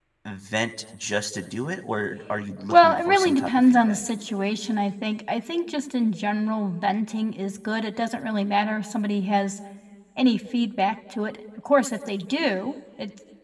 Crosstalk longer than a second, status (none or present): present